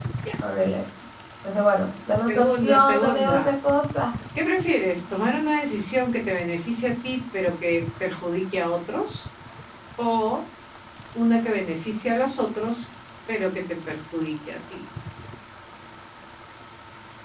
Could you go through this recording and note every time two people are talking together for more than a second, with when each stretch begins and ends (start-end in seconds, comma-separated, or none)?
2.3-3.5